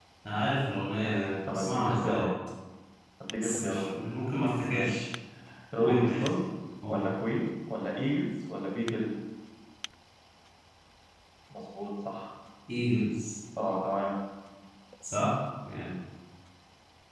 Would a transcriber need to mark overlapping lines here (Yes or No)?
Yes